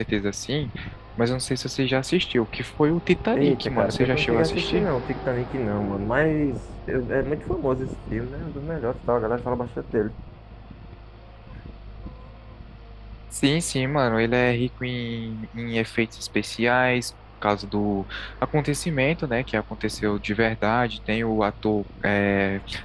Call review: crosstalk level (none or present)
present